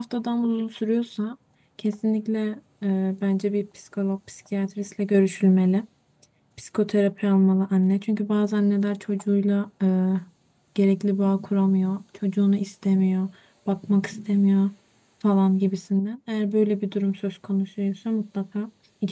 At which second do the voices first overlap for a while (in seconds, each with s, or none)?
none